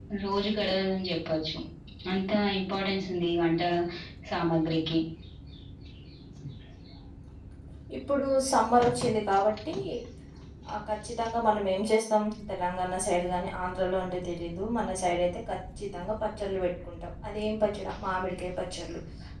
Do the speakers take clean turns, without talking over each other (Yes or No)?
Yes